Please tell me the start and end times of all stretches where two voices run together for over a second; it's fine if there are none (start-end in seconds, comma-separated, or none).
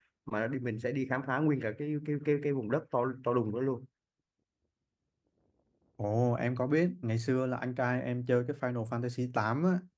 none